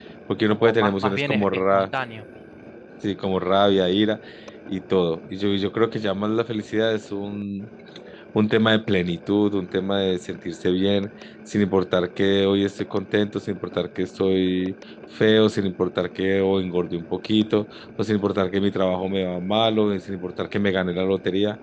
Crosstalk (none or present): present